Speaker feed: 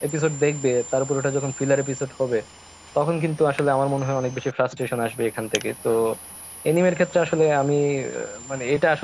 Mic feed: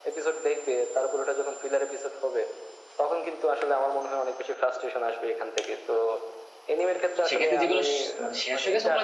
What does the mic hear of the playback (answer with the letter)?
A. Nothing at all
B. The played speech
B